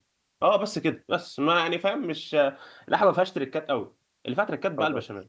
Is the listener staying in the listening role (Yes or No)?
Yes